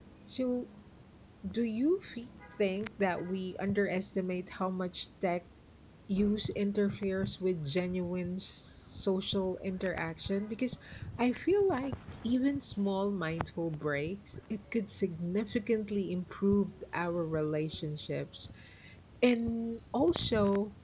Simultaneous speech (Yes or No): No